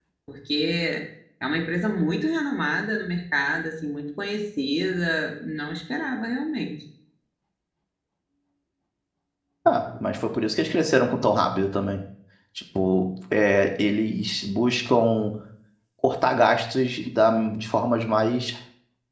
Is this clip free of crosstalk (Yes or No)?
Yes